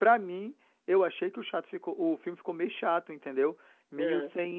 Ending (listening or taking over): listening